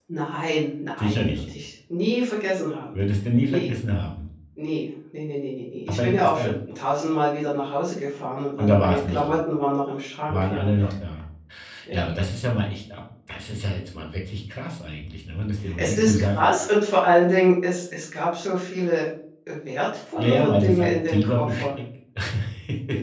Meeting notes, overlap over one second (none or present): present